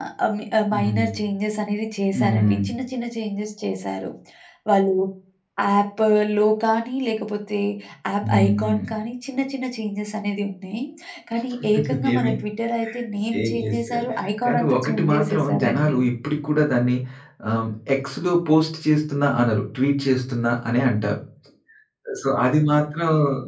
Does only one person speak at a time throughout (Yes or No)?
No